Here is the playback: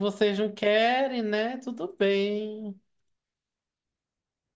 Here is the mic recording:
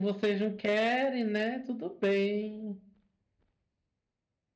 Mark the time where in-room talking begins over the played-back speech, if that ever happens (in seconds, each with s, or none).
none